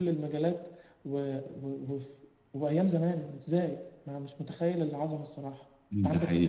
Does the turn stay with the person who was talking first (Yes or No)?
No